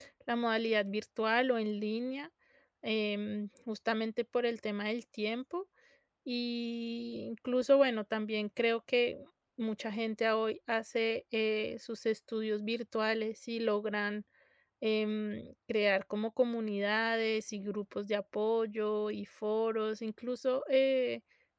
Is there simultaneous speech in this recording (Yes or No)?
No